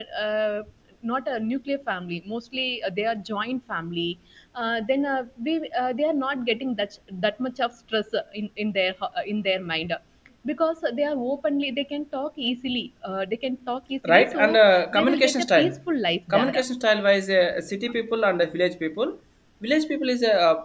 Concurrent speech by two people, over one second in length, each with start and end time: 14.1-15.7

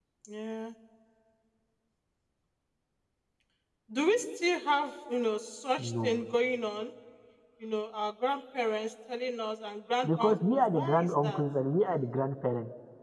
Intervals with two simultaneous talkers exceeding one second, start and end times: 10.0-11.4

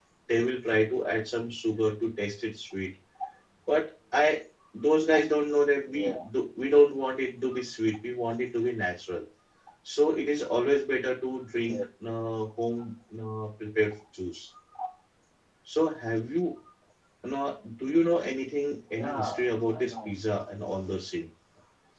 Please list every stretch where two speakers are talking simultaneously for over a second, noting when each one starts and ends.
18.9-20.1

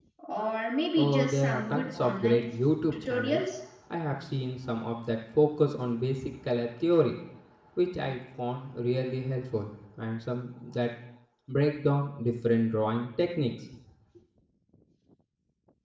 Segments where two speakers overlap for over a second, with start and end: 1.0-2.4

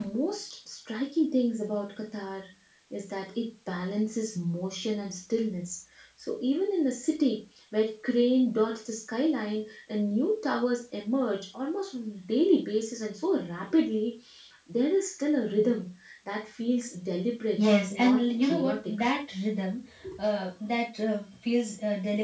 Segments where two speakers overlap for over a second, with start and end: 17.6-19.0

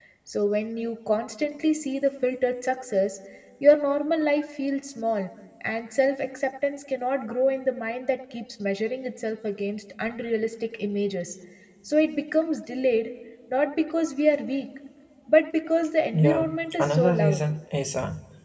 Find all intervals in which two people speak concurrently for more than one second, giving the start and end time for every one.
16.1-17.4

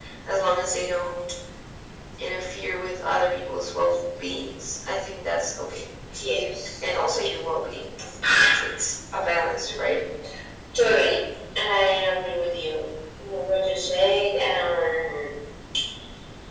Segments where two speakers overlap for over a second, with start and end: none

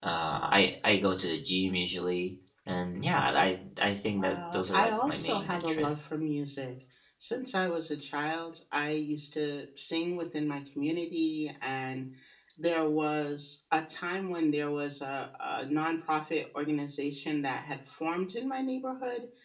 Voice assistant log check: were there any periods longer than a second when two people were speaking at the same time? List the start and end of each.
4.2-6.0

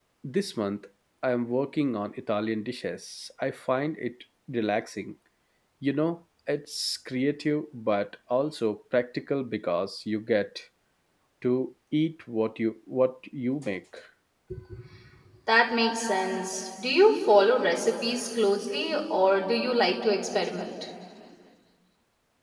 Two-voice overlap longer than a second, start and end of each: none

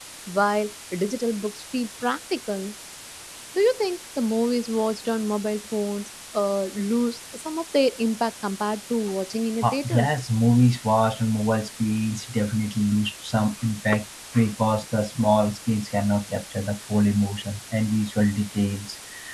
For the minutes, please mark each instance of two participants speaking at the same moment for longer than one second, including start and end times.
none

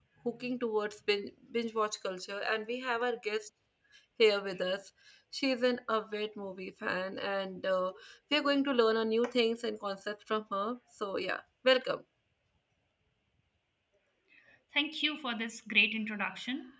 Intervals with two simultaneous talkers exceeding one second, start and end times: none

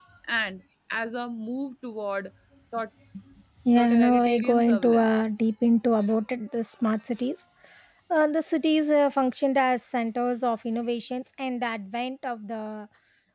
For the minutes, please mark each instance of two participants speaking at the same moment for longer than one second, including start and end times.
3.8-5.5

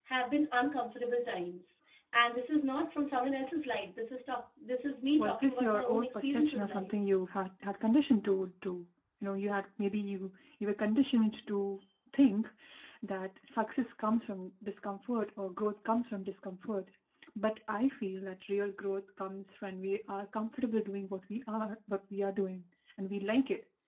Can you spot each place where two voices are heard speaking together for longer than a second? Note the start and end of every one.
5.2-6.9

